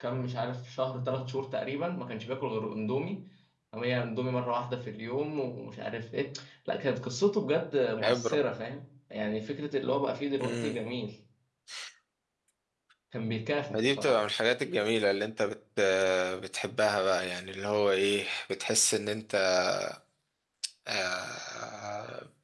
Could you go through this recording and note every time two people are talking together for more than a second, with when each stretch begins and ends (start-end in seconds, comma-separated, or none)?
none